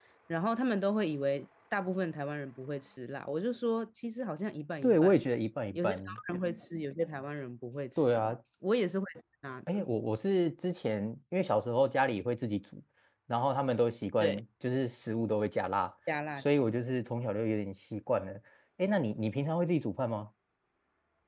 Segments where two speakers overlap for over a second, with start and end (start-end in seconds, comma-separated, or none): none